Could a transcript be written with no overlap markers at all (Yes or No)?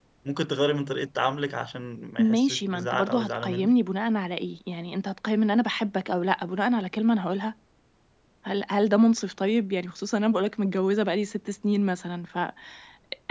No